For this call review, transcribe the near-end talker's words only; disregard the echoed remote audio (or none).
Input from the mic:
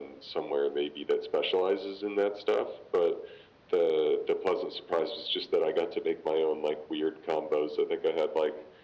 none